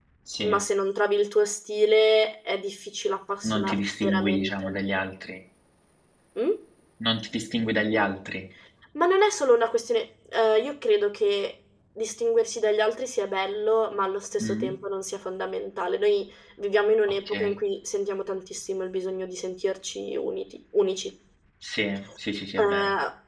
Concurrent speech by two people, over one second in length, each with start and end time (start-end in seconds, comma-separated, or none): 3.4-4.8